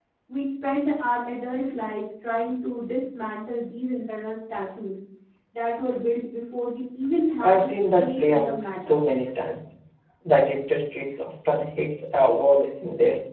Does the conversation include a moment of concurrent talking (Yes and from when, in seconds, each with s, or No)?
Yes, from 7.4 s